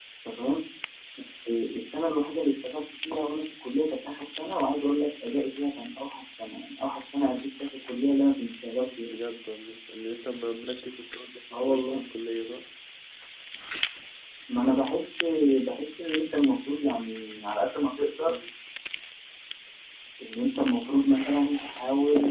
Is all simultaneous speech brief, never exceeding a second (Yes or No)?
Yes